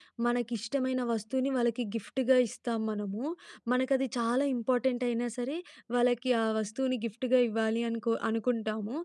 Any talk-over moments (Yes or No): No